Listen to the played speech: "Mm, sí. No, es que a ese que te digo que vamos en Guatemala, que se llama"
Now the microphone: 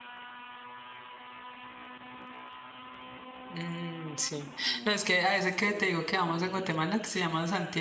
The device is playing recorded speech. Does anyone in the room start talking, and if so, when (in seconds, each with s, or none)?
none